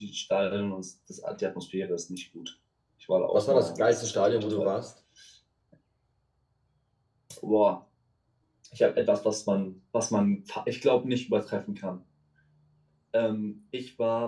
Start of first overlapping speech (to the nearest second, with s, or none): 3 s